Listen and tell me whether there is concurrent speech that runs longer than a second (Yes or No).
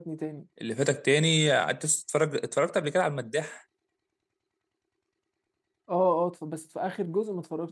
No